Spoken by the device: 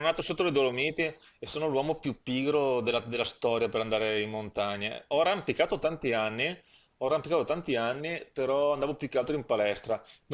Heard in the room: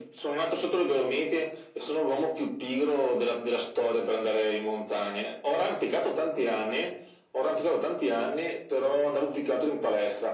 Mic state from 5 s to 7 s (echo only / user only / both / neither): echo only